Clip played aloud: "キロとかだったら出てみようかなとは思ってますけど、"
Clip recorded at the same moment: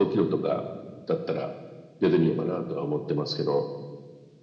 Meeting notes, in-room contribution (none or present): none